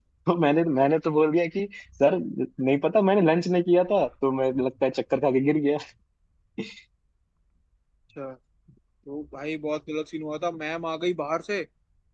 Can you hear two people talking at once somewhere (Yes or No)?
No